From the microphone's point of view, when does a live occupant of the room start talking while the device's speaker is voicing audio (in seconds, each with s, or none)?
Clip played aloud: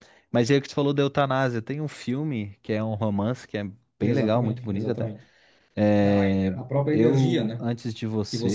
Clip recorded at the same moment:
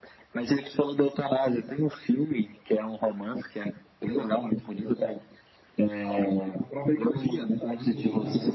7.5 s